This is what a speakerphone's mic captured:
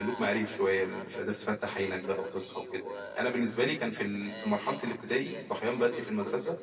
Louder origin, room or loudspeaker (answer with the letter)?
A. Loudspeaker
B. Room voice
B